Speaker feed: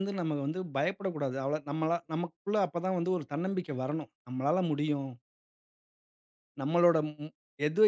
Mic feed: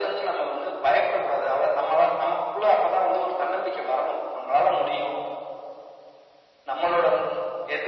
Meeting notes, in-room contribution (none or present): none